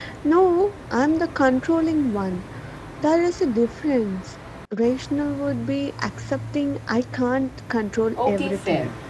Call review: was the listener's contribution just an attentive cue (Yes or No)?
No